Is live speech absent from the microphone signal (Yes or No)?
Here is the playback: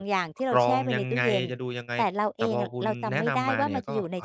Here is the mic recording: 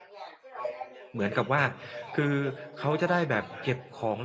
No